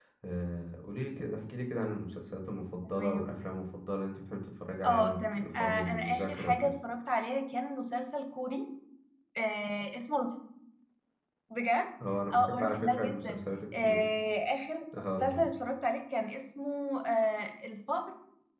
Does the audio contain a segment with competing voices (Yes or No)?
Yes